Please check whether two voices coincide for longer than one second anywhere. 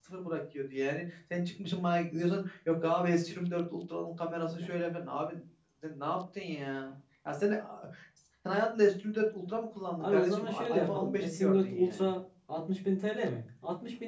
Yes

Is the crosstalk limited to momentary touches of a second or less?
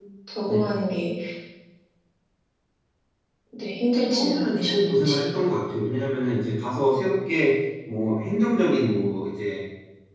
No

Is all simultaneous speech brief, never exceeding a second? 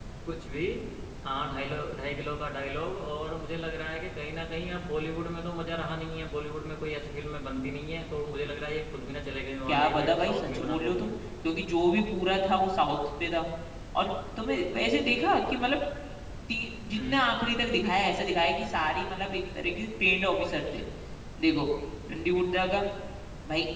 No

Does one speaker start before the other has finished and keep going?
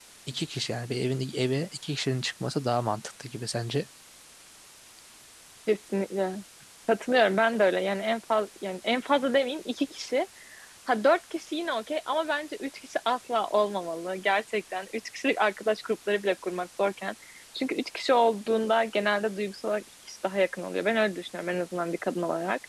No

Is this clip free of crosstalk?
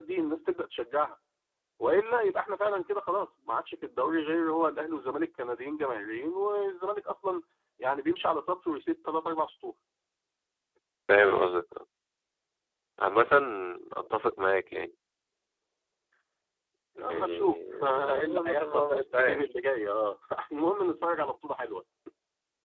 No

